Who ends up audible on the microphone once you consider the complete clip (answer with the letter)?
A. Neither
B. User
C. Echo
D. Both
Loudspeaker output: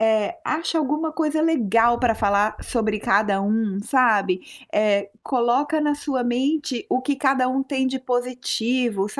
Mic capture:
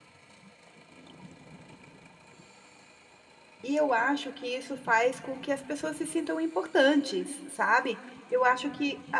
B